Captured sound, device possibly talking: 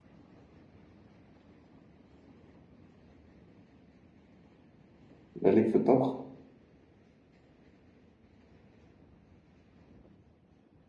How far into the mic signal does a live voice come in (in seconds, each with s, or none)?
5.4 s